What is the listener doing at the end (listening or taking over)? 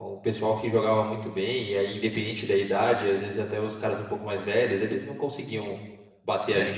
taking over